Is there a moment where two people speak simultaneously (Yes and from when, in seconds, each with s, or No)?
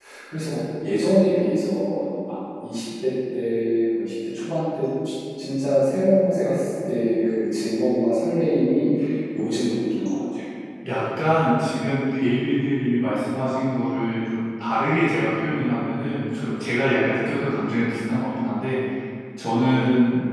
No